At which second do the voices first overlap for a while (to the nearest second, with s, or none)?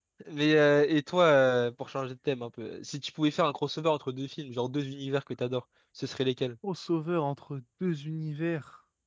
none